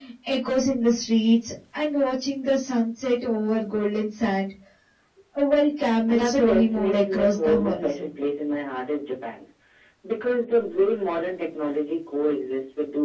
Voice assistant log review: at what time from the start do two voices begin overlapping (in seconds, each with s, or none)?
6.1 s